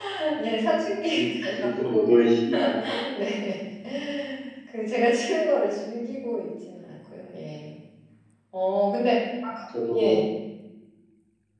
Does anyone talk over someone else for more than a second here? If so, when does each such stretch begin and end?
none

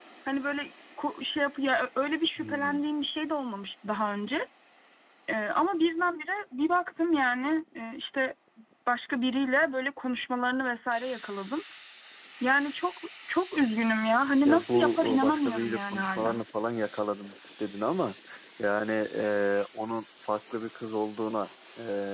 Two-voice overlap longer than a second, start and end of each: 14.4-16.4

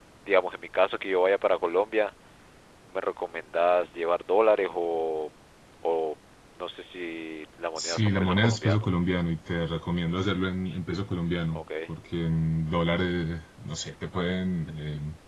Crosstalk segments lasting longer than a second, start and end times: 7.8-9.0

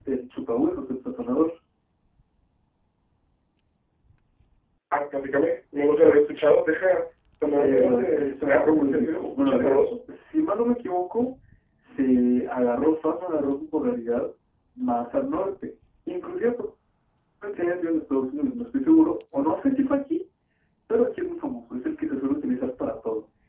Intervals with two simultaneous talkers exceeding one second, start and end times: 7.5-9.8

